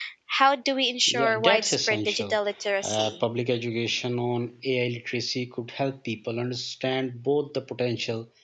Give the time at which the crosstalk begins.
1 s

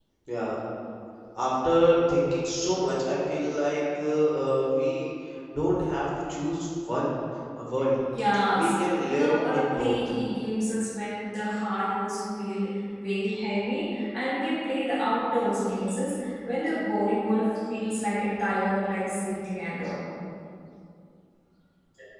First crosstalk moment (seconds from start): 9 s

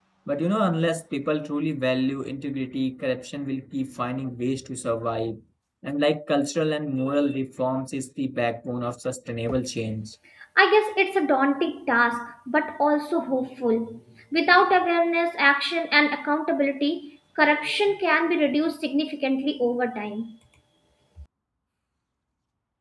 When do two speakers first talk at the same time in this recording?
none

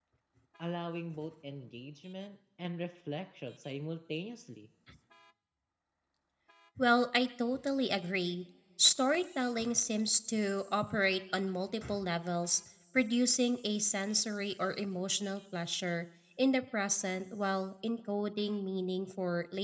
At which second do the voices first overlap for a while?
none

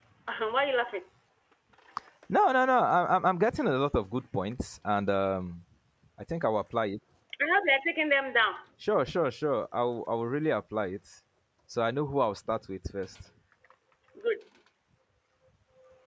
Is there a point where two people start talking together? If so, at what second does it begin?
none

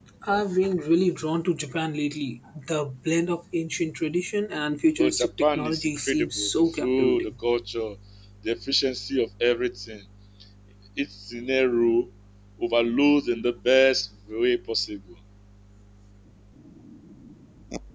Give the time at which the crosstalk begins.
5 s

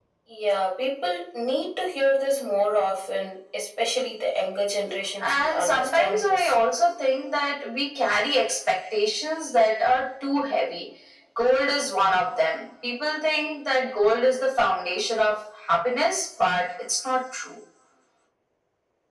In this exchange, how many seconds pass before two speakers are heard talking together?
5 s

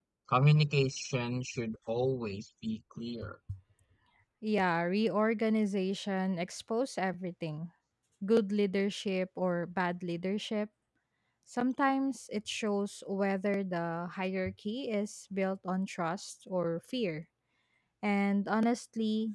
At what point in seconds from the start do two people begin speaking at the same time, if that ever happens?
none

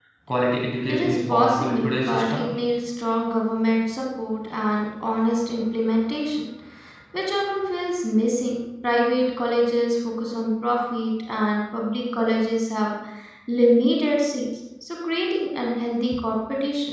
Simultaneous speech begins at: 1 s

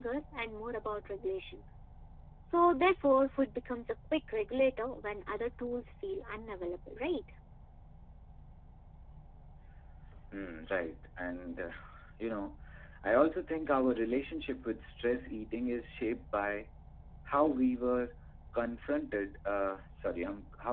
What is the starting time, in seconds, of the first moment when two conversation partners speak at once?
none

